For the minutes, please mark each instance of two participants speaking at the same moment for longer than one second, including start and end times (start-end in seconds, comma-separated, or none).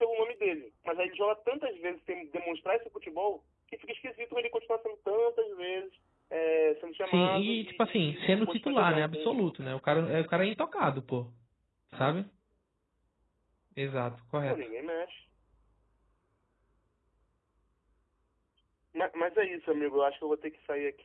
7.0-9.3